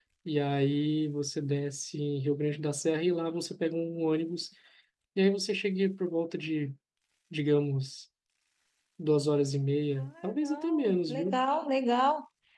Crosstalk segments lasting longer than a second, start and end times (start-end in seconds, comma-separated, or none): 10.0-11.4